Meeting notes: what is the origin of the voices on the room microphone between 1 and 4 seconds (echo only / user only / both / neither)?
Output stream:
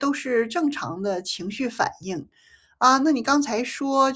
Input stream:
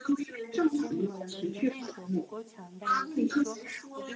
both